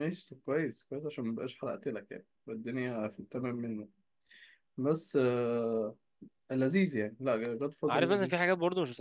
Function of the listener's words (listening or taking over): taking over